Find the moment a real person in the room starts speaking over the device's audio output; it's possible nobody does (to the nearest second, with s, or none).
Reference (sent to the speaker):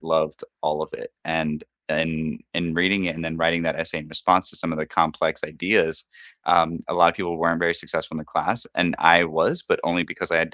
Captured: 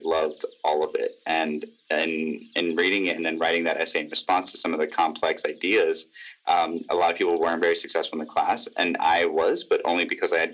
none